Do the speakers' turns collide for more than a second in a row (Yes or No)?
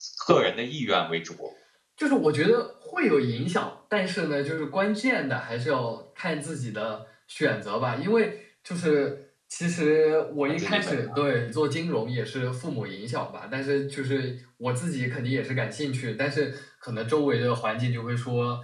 No